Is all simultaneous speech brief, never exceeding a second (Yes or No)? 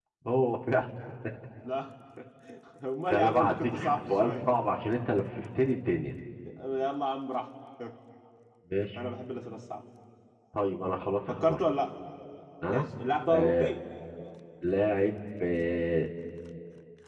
No